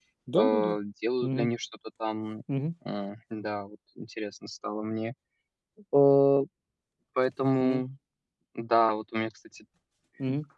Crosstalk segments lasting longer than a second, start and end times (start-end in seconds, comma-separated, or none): none